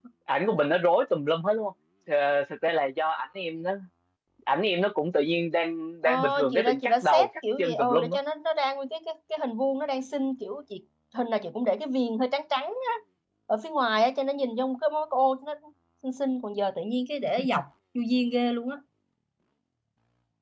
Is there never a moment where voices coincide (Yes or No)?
No